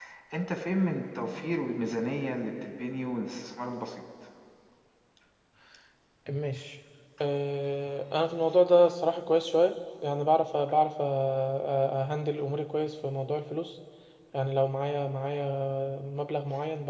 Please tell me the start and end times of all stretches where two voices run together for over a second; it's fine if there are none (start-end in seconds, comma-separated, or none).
none